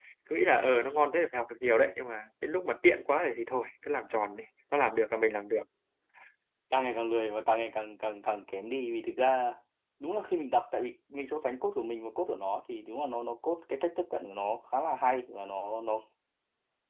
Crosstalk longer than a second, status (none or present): none